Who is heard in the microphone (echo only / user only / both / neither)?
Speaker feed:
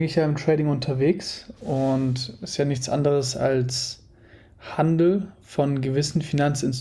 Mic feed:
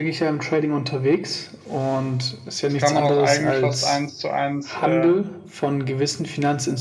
both